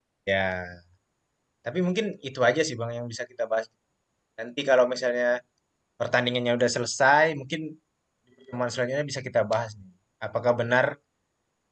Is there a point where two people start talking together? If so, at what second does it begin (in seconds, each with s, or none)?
none